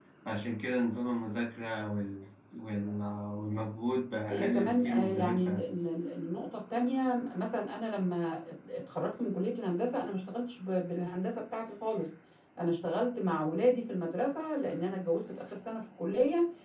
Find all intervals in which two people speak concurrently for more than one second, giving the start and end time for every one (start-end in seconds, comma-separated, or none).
4.3-5.7